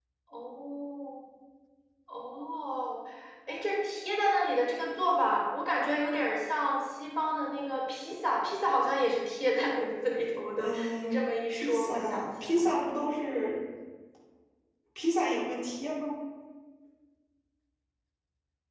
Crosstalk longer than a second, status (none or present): present